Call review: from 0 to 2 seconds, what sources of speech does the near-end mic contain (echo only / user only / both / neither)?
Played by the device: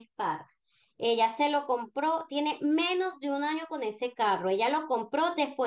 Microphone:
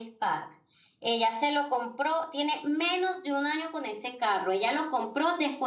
echo only